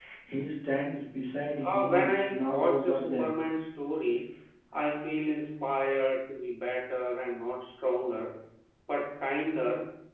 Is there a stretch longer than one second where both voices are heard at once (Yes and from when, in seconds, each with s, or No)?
Yes, from 1.6 s